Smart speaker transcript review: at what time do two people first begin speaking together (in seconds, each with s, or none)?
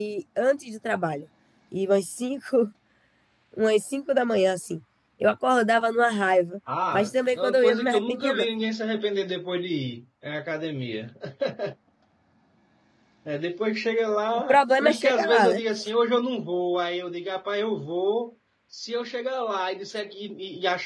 6.9 s